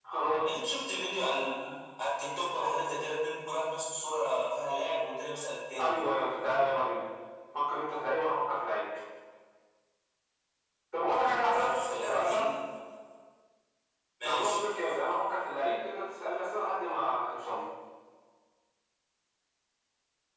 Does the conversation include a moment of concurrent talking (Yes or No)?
Yes